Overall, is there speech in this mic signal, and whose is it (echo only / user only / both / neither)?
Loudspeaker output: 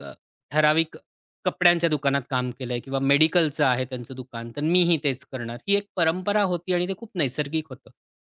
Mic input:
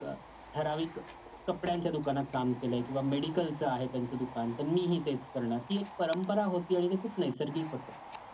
echo only